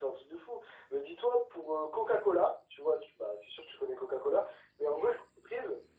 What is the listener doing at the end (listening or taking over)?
listening